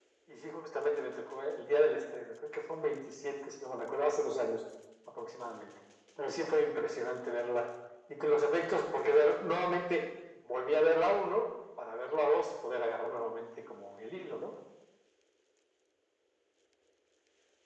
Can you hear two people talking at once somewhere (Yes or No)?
No